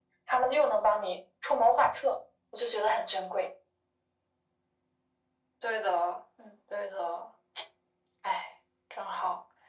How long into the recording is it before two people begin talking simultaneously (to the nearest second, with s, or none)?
none